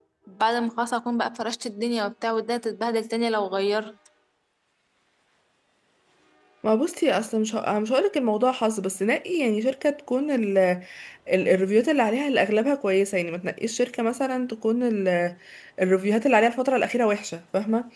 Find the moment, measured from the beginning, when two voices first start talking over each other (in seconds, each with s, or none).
none